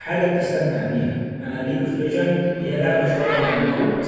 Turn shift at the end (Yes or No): No